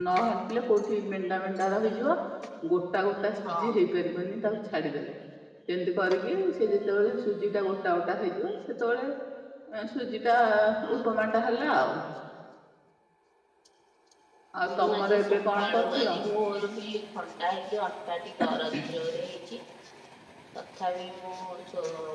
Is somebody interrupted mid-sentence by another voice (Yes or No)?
Yes